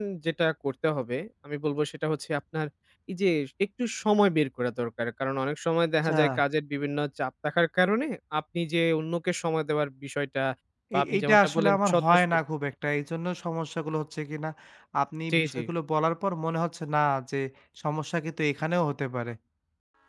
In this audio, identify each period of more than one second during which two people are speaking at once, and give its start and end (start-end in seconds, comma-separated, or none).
10.9-12.2